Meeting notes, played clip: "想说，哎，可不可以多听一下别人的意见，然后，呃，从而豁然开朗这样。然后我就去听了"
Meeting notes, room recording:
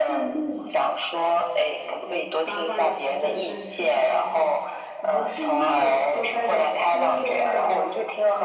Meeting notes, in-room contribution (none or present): present